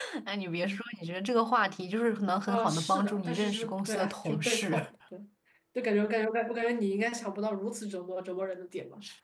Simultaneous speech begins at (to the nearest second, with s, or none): 2 s